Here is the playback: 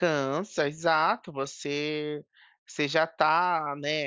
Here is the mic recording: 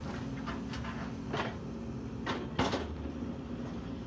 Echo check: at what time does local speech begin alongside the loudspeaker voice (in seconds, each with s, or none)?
none